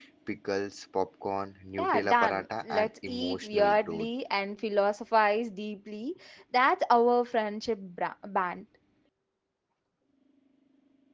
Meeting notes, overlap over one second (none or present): present